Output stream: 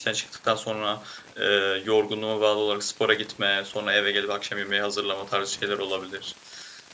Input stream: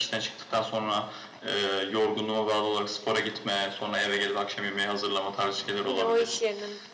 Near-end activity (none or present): present